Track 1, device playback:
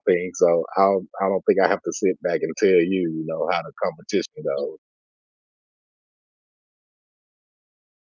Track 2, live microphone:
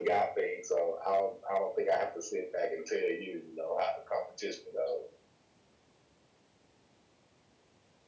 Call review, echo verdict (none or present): present